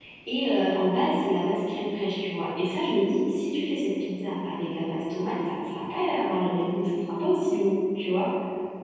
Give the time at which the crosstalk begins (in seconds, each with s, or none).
none